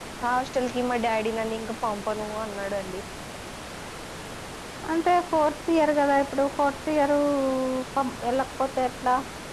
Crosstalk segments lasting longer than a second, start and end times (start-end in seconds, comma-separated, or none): none